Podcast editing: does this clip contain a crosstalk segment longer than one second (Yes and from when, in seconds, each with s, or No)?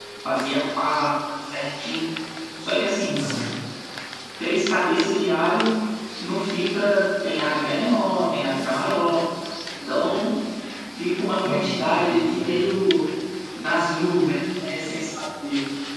Yes, from 11.4 s